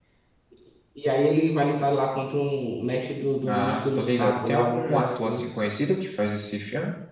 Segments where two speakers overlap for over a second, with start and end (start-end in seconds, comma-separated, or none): 3.5-5.4